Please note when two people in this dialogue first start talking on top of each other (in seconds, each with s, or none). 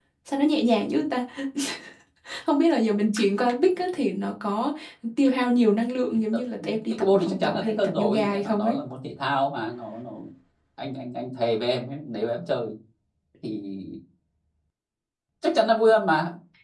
6.9 s